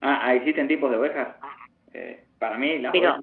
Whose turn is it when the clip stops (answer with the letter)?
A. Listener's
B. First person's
A